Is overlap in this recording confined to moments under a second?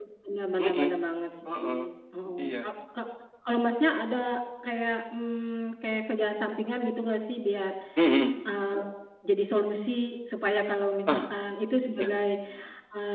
Yes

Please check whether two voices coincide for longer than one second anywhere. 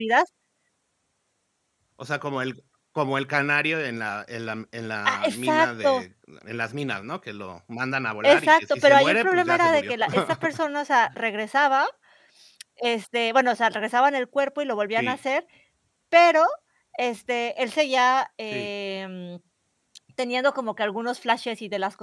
Yes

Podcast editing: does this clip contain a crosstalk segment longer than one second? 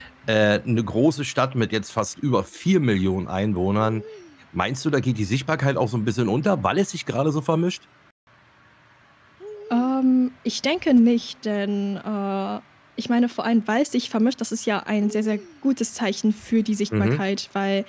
No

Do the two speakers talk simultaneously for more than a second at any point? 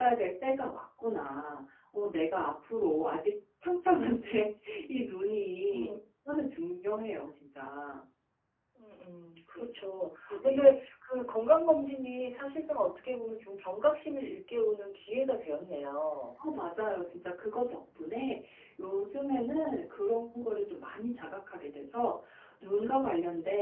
No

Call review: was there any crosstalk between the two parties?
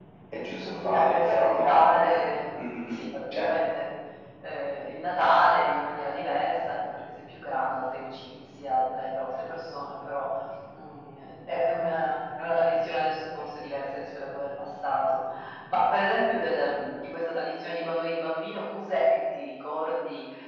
Yes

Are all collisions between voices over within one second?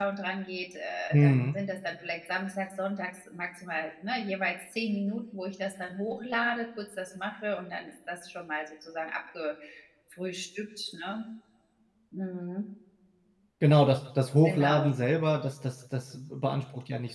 Yes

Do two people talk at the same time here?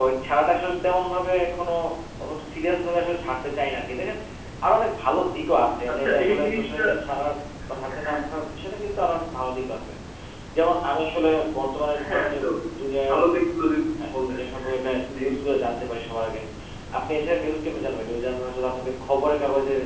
Yes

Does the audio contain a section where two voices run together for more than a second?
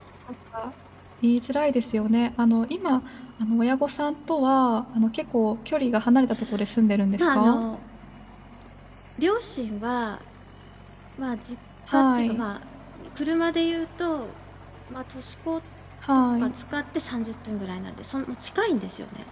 No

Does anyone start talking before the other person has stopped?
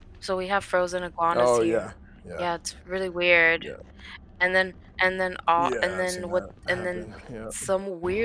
Yes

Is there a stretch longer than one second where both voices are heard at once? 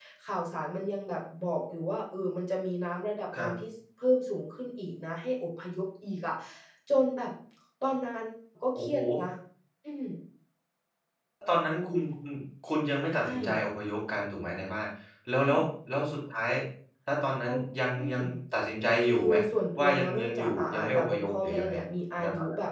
Yes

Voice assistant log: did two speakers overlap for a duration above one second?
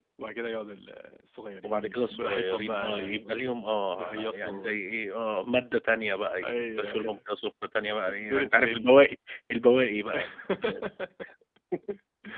Yes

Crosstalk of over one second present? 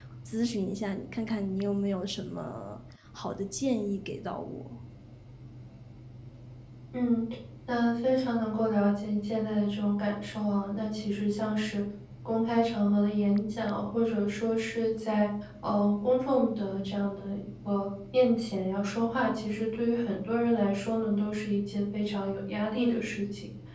No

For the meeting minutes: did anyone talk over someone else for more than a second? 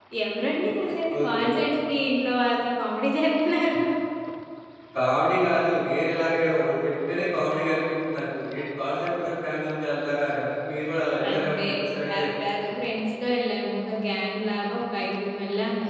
No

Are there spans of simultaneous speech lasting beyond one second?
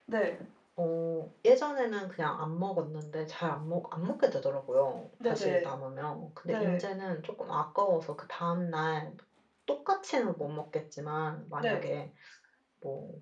No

